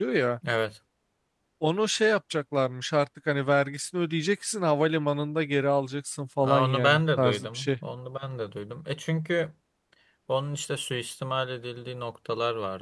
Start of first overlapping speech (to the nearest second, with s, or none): 6 s